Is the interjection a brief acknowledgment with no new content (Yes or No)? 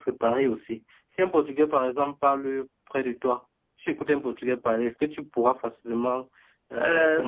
No